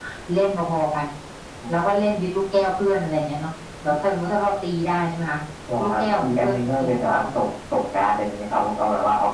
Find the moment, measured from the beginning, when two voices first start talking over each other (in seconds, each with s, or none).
5.8 s